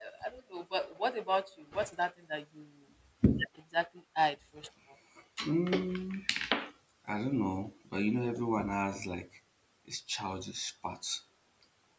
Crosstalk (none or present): none